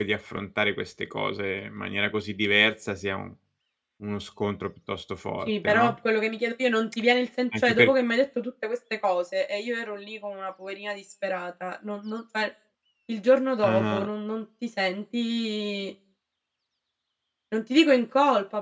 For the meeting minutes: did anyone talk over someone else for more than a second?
No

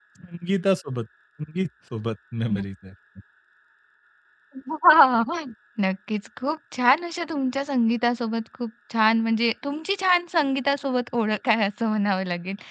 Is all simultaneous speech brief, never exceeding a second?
Yes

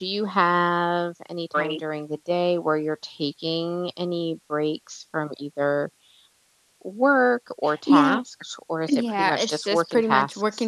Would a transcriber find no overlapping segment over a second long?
No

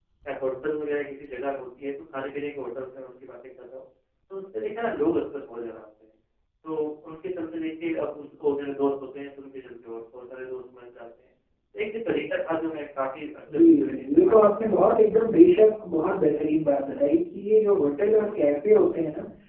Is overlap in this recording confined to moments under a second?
No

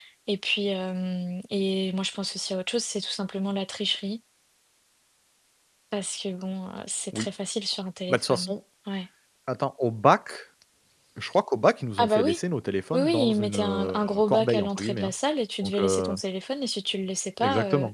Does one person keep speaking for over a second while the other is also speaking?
Yes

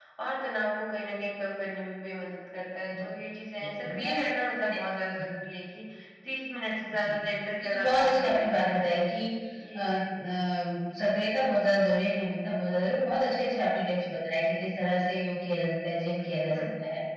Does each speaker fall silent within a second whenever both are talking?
No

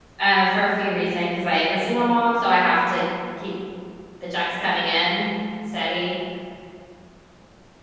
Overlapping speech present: No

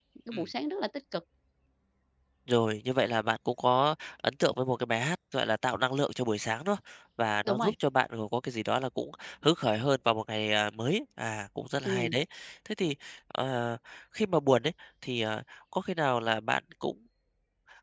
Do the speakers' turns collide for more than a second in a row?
No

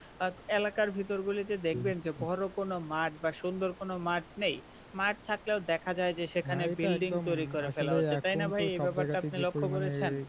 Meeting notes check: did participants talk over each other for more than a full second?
Yes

